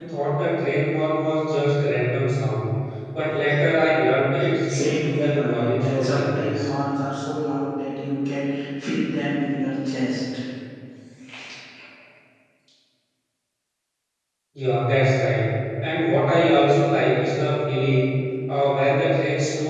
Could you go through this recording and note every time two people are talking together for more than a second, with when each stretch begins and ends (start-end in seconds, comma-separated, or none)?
4.7-6.7